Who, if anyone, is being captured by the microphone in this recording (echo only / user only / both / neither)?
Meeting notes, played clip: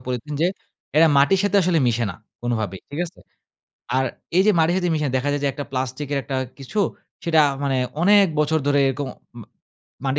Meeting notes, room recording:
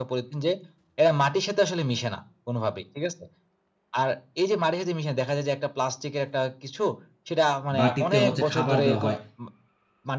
both